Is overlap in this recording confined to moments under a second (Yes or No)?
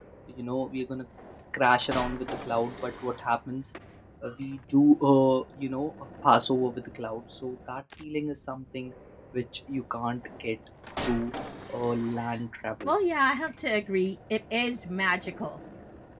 Yes